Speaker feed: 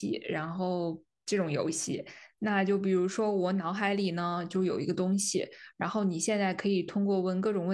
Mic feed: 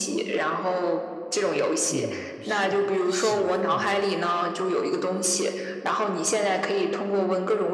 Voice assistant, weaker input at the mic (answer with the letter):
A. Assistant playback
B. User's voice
B